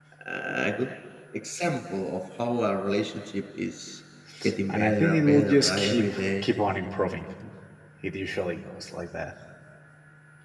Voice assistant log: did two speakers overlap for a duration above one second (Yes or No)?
Yes